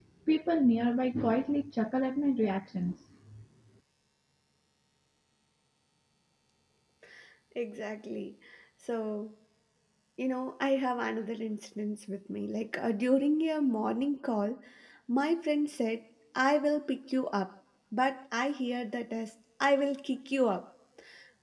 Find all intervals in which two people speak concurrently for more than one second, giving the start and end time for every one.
none

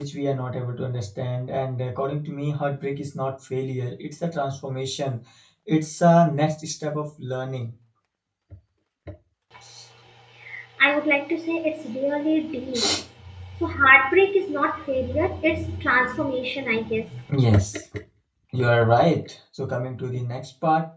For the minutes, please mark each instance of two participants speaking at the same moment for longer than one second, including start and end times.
none

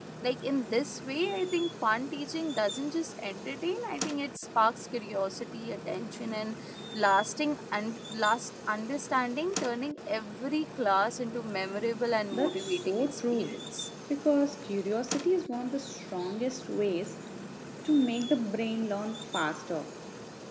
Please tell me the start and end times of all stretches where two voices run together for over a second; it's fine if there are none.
12.3-13.5

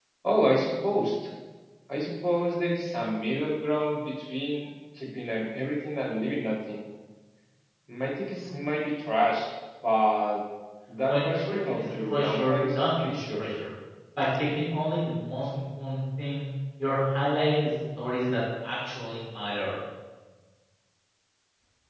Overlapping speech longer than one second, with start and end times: 11.1-13.4

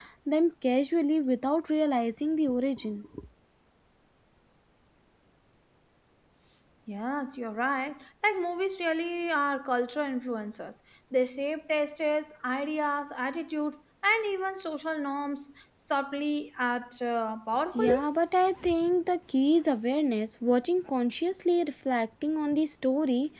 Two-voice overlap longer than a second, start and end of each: none

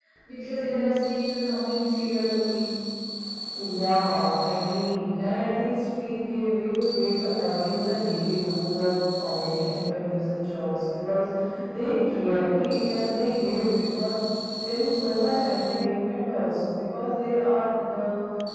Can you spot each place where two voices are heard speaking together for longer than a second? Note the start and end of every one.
none

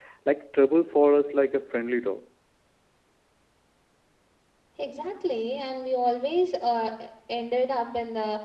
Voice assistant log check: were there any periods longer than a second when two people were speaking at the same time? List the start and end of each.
none

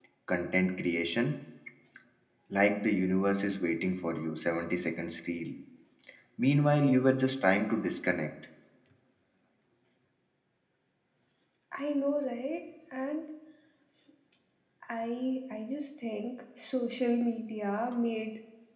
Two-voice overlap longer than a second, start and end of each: none

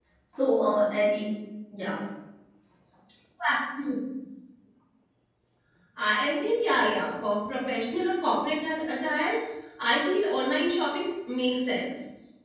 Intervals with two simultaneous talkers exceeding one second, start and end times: none

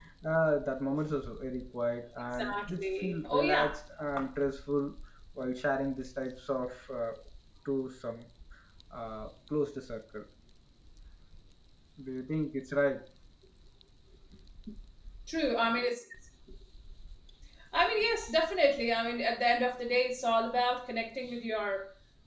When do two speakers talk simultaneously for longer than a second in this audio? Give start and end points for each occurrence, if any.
2.3-3.8

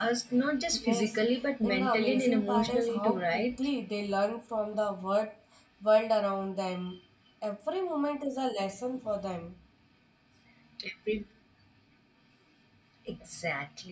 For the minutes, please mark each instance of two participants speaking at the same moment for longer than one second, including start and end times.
1.6-3.7

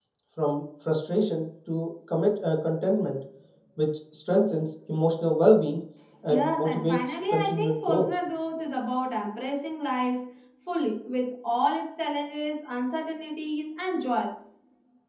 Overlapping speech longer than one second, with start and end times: 6.3-8.1

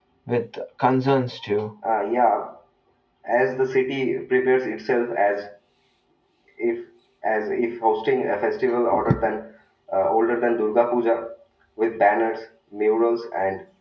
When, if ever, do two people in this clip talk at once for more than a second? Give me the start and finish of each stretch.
none

